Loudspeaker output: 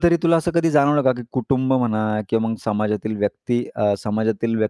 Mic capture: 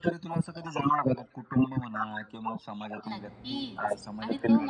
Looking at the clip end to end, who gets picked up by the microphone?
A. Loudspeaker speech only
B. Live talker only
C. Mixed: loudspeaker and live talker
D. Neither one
C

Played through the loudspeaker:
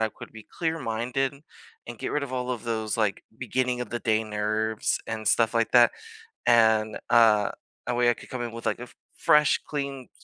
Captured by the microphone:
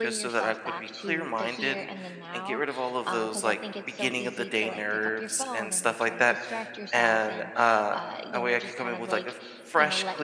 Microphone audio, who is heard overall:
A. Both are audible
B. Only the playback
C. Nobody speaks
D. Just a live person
A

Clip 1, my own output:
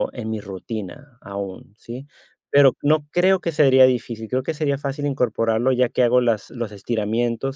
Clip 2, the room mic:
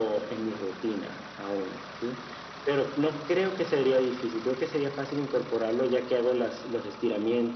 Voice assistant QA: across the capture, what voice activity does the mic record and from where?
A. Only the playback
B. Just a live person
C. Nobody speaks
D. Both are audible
A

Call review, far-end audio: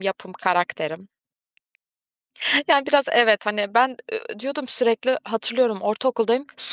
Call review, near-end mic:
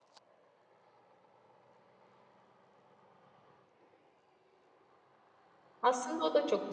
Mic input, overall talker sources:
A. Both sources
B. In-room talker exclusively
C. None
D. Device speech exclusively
B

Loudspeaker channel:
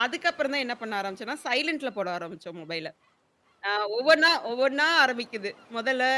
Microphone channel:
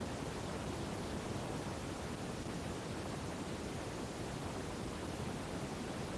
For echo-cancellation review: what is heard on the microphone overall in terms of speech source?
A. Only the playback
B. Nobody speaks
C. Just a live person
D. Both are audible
B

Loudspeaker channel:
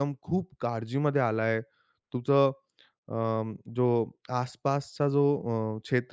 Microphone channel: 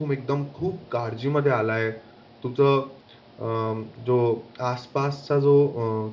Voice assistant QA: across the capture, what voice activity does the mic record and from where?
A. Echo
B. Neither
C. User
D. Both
A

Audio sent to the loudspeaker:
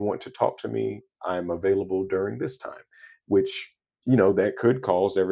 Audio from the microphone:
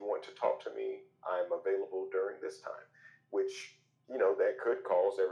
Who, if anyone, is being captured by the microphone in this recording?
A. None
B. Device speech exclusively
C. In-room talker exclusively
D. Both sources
B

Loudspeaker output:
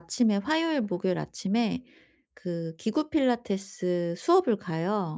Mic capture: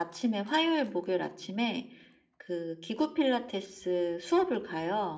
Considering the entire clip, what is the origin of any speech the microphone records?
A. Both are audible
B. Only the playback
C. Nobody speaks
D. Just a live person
B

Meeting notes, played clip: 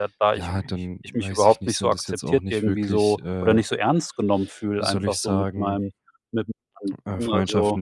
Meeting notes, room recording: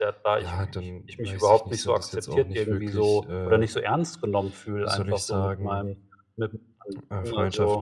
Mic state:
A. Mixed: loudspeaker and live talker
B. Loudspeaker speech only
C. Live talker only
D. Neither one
B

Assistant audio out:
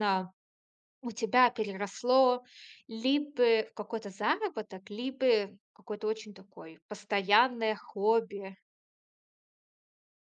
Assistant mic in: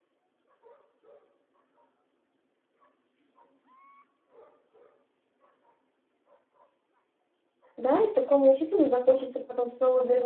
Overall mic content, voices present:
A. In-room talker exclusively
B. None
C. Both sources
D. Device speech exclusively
A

